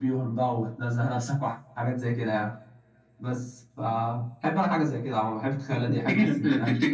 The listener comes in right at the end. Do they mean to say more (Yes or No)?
Yes